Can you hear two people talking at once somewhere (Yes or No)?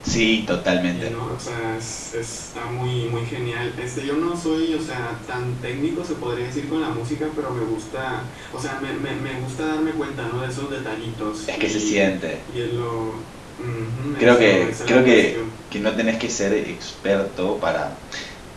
Yes